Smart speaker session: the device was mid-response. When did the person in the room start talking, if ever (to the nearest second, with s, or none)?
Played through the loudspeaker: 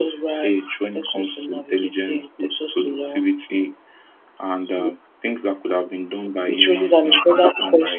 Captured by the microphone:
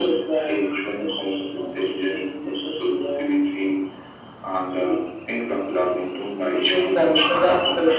none